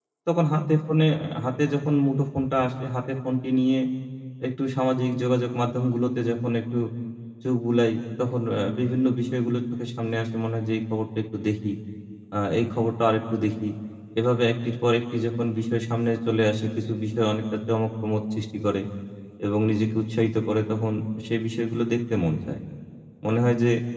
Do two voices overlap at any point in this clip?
No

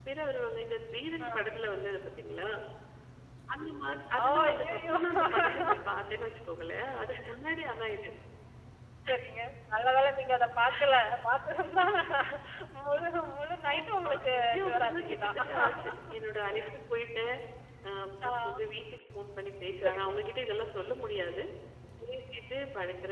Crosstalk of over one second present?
Yes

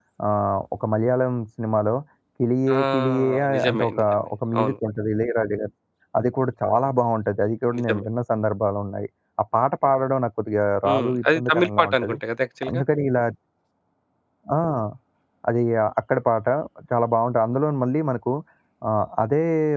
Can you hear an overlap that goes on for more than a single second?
Yes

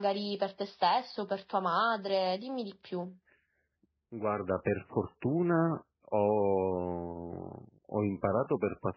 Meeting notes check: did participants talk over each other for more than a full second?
No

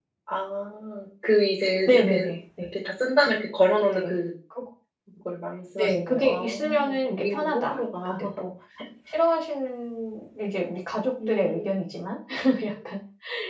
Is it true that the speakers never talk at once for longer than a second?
No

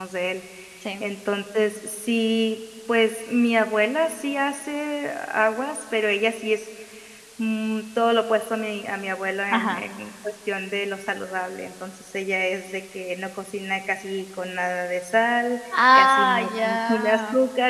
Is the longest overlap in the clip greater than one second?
Yes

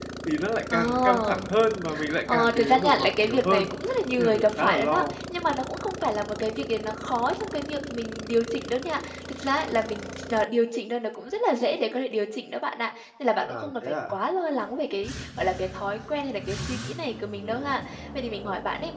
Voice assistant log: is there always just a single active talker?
No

